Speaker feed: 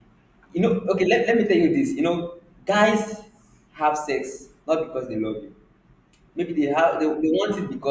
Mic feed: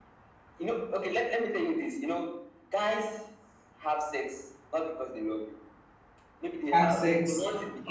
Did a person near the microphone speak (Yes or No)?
Yes